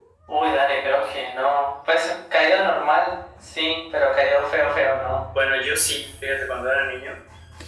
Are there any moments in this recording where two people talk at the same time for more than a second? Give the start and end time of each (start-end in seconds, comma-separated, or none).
none